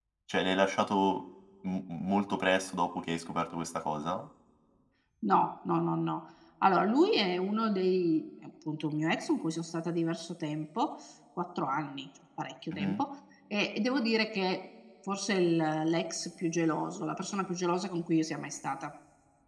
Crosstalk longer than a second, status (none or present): none